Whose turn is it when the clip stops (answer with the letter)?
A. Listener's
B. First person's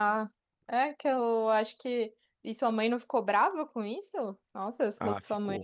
A